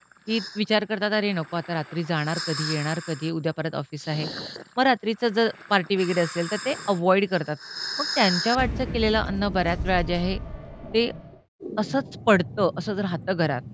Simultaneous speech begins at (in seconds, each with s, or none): none